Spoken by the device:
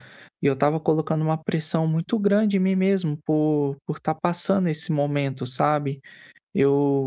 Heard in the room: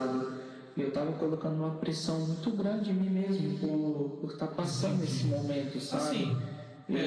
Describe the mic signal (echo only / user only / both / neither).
both